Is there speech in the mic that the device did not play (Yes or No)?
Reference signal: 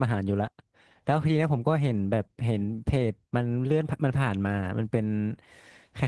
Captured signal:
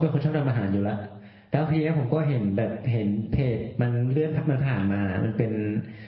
No